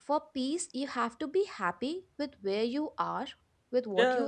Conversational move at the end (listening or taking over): taking over